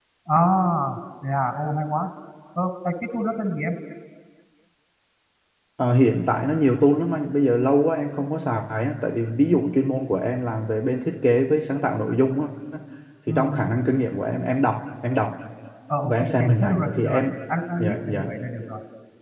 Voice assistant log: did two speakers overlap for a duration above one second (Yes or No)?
Yes